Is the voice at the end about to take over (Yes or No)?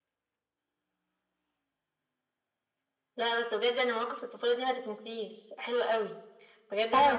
No